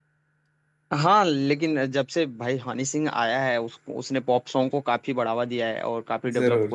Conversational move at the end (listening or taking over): listening